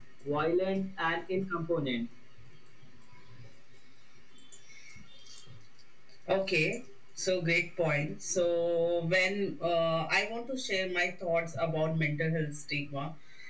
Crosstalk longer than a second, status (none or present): none